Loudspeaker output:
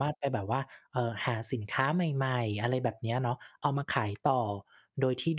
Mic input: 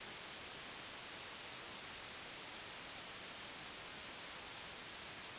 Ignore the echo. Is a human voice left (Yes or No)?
No